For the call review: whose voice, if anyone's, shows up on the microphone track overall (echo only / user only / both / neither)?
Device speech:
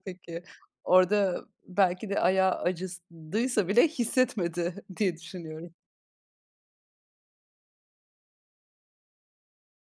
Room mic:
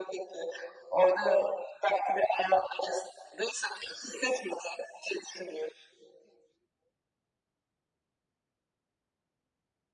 echo only